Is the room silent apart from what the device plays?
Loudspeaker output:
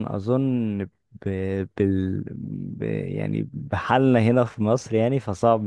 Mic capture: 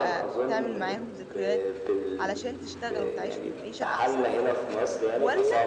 No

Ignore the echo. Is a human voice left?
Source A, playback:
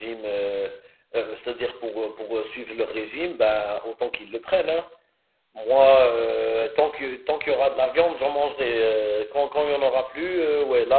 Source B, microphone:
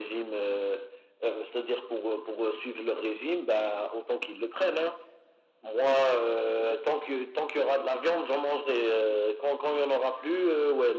No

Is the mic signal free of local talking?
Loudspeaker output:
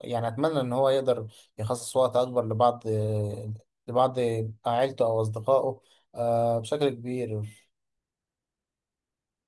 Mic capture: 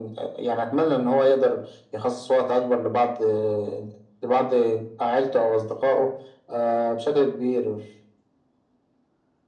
Yes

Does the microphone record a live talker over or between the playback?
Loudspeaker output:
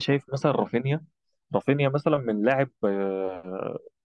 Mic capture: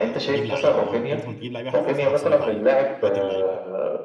Yes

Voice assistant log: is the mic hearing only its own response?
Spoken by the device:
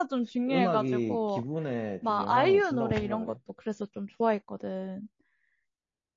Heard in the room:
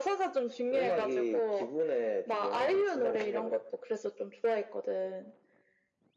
Yes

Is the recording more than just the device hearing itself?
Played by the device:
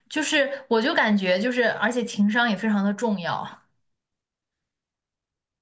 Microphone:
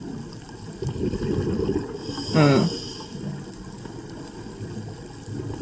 Yes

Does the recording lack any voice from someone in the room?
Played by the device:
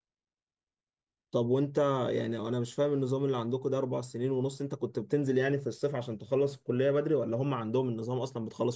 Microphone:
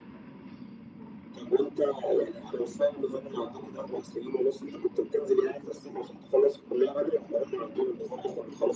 Yes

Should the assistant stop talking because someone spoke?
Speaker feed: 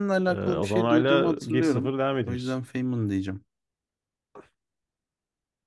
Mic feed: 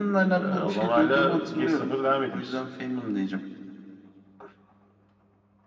No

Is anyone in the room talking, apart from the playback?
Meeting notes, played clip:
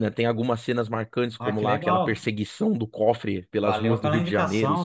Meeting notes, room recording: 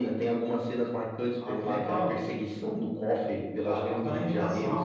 No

